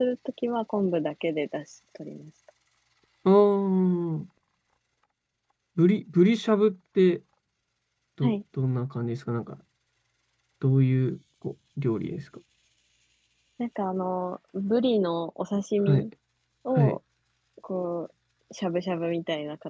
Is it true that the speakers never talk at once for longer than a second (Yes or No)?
Yes